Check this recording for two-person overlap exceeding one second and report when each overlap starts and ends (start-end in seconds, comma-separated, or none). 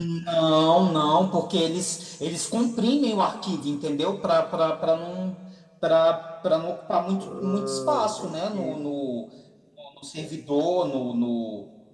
7.2-8.8